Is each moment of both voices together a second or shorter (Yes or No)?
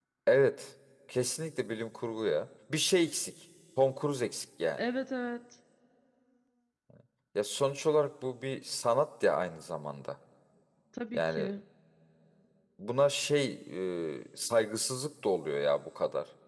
Yes